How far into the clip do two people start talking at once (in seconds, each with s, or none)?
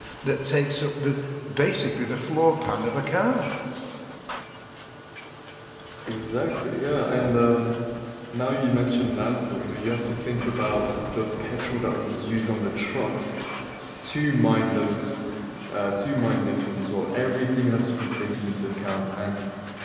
none